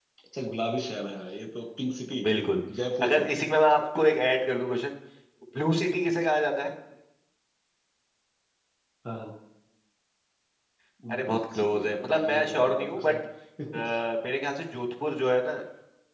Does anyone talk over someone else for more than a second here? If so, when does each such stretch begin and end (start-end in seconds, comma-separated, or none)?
11.1-13.1